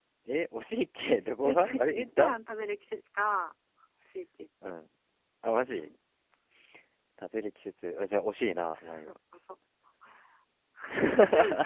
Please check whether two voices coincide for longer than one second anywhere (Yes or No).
Yes